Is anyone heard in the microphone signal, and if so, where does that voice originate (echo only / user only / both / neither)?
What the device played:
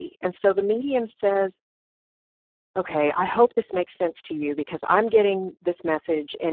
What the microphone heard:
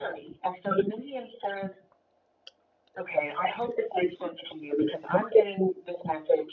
echo only